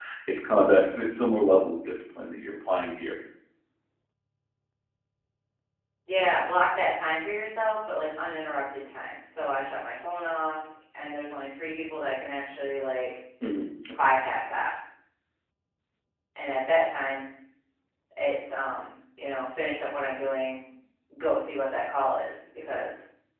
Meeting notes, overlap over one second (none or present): none